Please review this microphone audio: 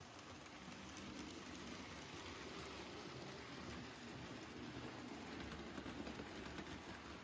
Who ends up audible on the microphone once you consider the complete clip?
neither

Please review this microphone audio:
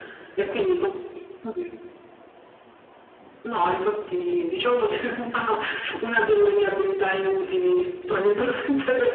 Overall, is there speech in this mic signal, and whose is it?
echo only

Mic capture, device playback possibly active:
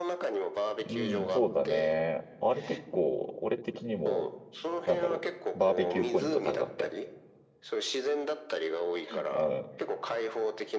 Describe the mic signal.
both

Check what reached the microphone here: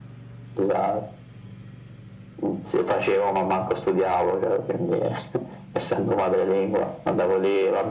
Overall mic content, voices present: echo only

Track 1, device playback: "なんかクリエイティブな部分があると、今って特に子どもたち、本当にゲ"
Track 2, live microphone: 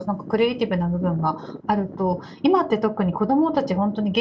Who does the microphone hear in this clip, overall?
echo only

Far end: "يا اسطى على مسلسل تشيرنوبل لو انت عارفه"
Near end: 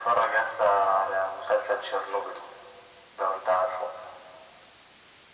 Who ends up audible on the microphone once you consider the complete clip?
echo only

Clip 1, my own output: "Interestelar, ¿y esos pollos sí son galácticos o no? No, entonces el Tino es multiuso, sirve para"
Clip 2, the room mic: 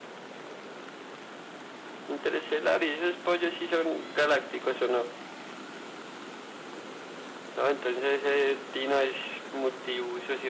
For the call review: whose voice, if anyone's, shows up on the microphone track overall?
echo only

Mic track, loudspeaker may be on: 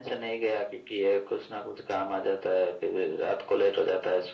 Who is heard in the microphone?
echo only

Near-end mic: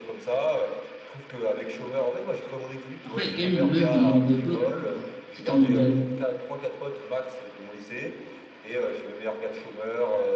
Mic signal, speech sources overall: both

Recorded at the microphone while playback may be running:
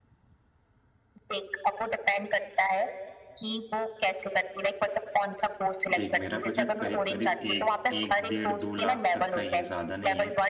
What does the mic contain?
both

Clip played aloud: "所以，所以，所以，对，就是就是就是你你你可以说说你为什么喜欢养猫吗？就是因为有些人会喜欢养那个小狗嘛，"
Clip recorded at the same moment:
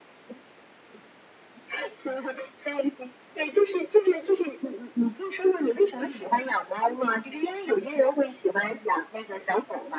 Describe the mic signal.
both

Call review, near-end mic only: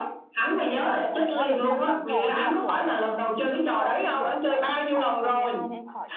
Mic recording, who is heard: both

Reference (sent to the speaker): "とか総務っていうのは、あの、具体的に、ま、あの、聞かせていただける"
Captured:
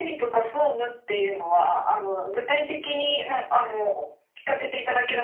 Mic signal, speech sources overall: echo only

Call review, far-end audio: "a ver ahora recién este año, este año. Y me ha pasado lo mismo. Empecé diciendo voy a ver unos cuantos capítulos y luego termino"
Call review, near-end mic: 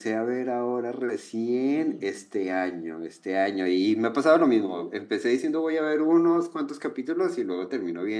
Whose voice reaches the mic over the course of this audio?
both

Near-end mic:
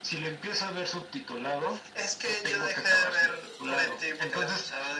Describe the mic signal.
echo only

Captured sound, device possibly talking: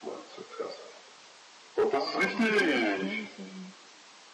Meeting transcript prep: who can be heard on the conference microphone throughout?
both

